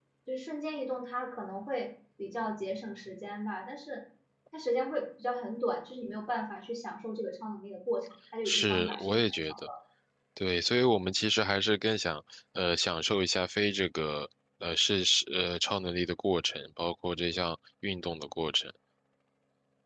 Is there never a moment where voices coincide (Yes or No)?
No